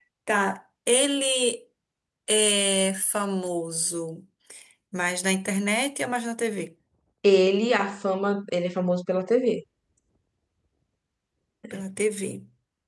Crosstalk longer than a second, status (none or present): none